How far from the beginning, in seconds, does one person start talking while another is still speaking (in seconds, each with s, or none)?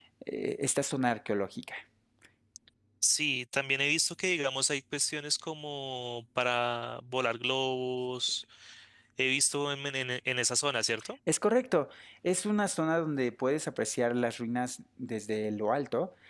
none